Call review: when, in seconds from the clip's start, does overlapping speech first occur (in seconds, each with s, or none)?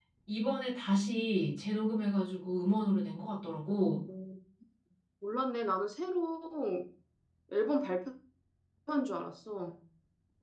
none